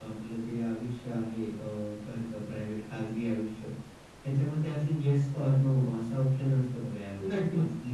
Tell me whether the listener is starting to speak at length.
No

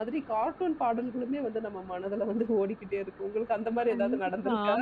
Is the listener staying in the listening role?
No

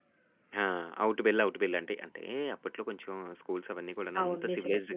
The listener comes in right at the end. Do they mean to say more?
Yes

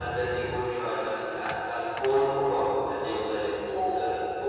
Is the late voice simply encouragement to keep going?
Yes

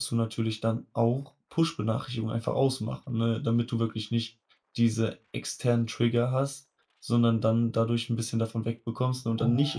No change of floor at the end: Yes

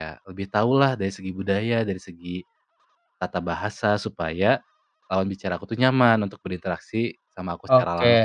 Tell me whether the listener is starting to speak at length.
Yes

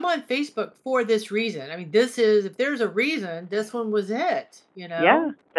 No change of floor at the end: No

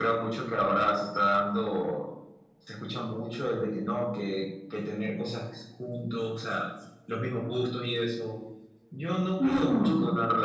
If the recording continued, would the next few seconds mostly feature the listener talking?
No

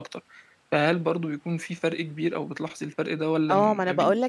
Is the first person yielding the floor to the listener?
Yes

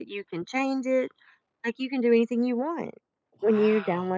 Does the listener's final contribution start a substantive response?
No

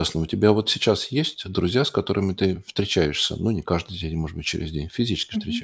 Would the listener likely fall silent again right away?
No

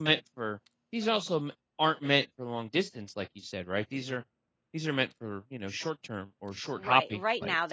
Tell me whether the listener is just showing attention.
No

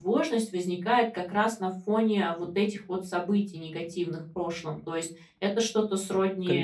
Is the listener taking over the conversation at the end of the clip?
No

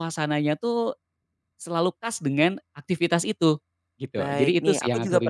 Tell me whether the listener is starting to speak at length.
Yes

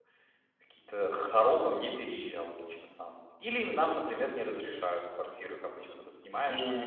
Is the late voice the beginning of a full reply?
Yes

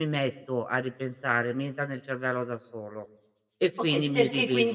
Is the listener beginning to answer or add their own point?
Yes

